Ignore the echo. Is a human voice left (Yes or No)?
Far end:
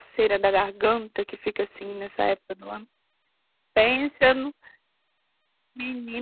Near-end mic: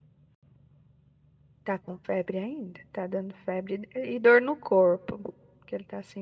Yes